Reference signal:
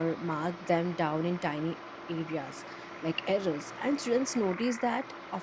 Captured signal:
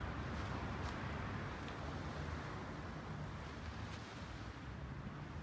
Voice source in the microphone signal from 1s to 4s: neither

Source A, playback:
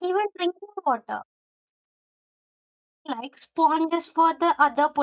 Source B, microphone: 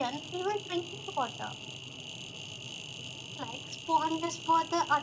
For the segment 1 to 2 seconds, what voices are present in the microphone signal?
echo only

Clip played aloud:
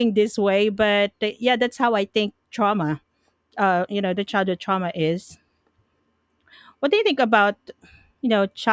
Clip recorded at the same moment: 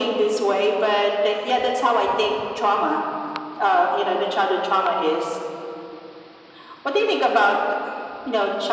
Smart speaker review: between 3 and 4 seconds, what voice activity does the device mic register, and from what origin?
echo only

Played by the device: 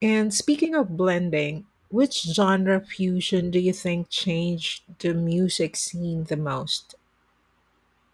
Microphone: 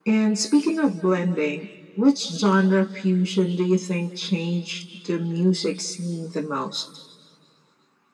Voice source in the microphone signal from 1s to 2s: echo only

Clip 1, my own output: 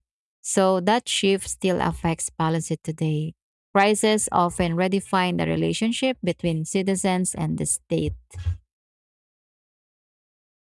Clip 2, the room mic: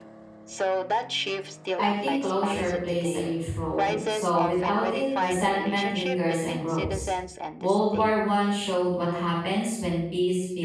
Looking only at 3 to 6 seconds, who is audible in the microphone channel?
both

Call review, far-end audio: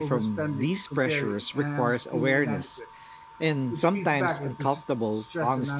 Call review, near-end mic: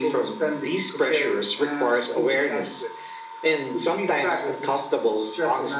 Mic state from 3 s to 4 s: echo only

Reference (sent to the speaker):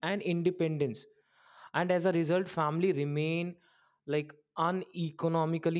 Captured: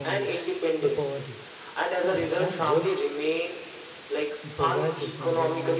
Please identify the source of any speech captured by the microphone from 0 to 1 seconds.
both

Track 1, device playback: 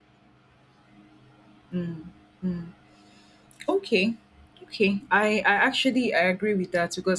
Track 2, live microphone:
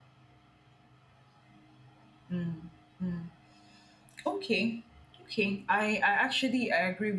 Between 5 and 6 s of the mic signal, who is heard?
echo only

